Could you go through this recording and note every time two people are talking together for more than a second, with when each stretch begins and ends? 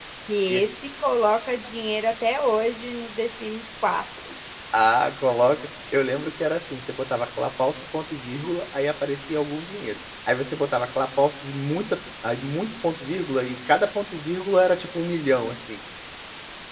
none

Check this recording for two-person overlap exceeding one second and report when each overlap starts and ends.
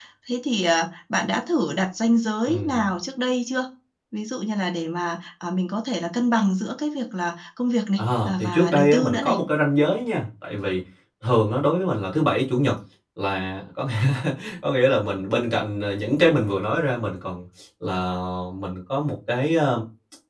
8.0-9.4

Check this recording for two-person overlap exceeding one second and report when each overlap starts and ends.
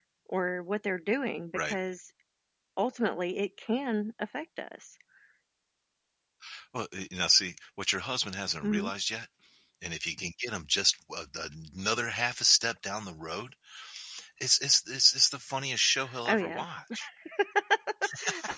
none

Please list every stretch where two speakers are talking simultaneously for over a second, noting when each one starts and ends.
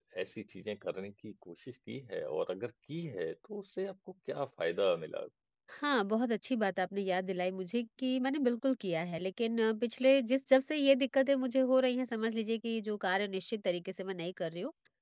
none

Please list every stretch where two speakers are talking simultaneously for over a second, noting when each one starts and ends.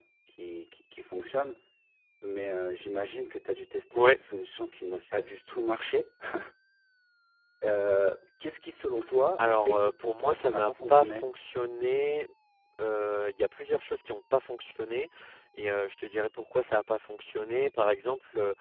9.6-11.2

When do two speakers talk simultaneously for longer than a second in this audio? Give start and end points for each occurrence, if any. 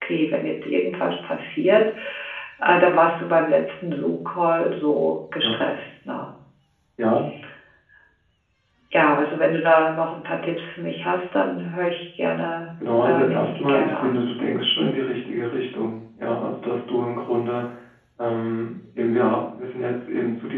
13.0-14.3

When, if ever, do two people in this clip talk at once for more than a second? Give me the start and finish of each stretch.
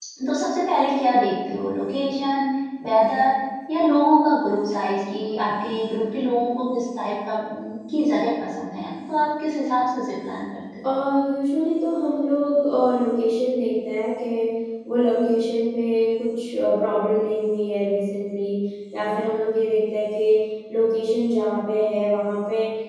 none

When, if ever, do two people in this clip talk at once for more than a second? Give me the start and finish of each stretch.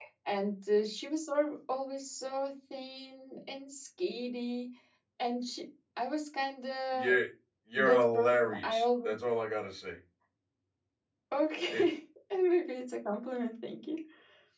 7.8-9.1

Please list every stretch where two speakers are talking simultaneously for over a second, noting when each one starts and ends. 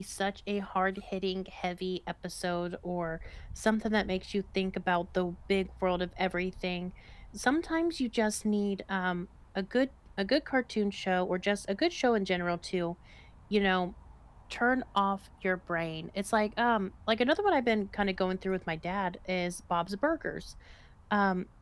none

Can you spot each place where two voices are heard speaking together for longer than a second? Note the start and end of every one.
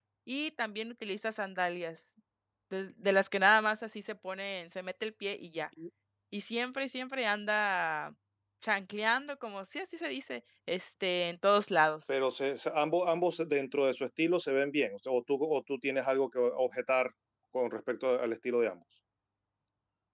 none

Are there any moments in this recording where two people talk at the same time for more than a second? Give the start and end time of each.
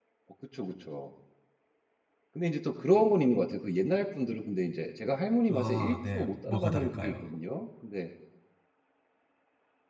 5.5-7.1

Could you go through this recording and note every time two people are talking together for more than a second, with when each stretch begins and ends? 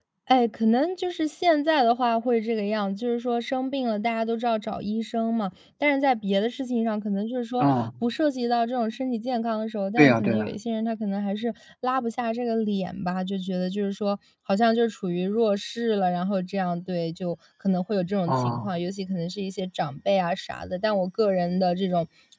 none

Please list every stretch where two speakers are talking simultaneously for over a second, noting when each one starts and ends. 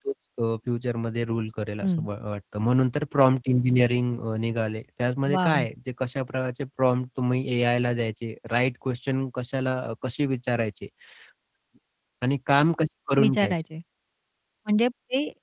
none

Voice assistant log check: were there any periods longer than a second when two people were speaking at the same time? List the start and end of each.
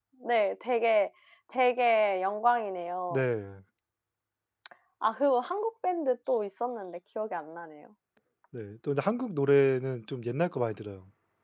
none

